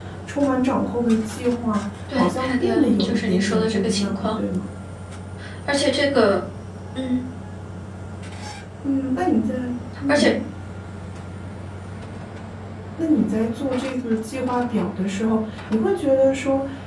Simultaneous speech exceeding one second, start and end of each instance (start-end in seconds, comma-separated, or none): 2.1-4.4